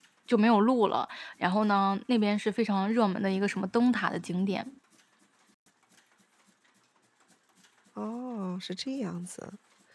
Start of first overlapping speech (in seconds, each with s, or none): none